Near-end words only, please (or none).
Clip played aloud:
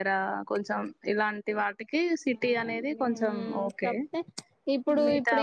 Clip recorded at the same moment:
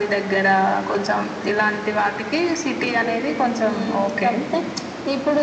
none